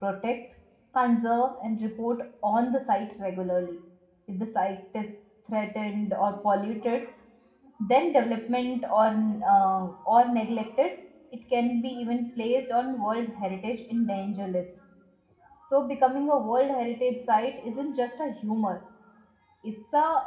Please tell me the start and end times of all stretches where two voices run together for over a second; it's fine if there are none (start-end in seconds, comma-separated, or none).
none